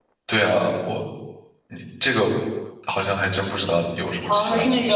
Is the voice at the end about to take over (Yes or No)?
Yes